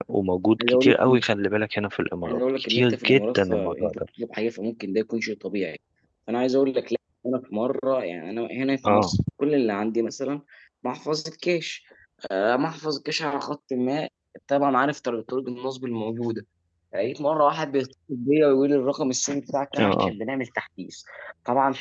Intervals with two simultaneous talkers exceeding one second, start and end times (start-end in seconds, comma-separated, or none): 2.2-4.0